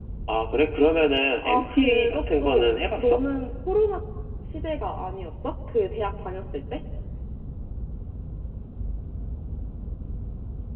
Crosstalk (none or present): present